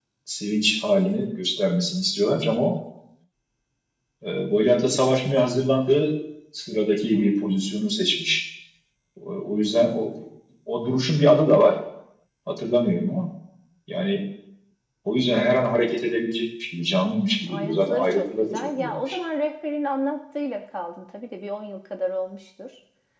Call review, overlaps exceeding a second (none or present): present